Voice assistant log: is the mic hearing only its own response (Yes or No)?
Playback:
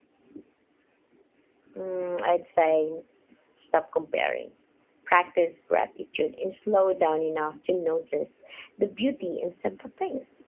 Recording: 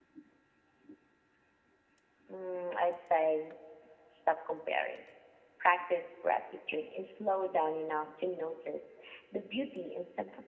Yes